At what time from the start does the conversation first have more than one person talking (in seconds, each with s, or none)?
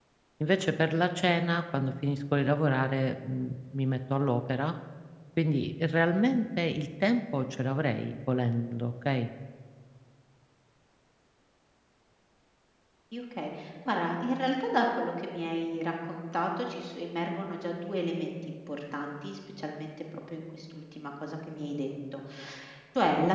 none